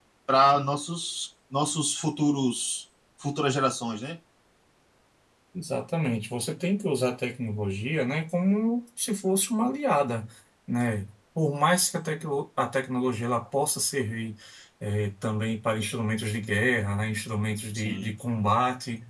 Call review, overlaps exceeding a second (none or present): none